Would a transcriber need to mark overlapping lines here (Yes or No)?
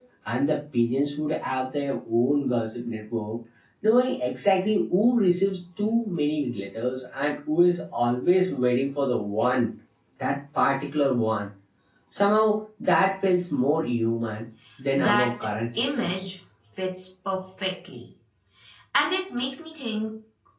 Yes